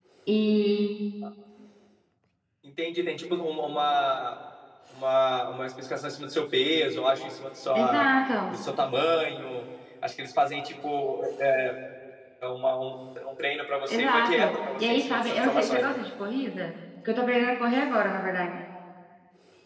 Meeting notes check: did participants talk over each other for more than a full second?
Yes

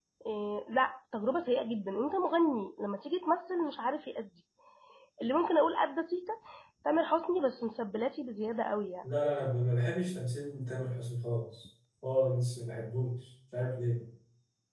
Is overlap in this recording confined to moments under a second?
Yes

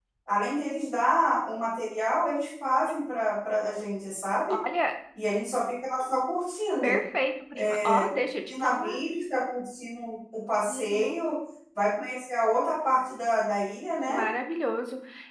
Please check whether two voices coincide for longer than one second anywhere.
No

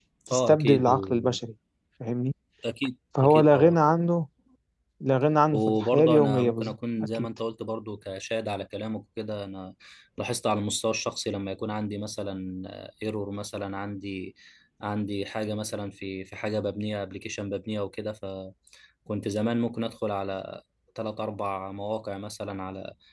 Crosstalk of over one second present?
Yes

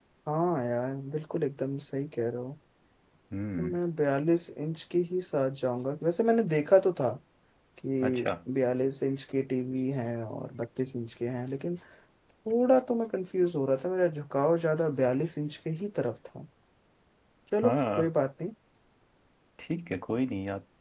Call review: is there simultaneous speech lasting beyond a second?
No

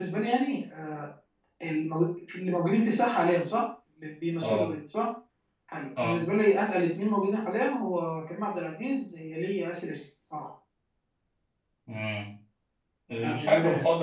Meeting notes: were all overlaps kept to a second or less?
Yes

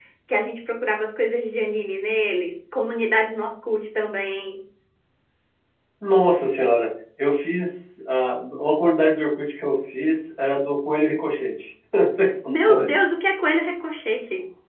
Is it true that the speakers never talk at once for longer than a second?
Yes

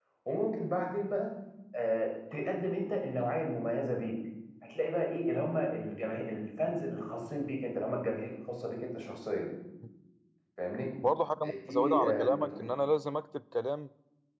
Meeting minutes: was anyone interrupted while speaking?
Yes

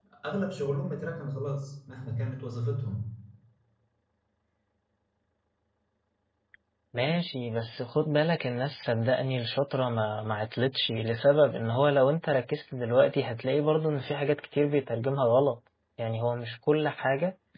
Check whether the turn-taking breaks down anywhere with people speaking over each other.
No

